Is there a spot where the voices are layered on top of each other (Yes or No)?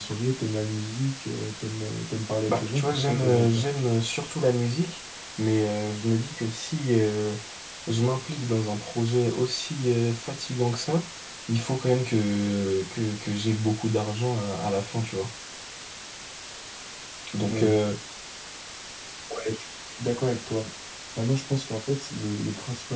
Yes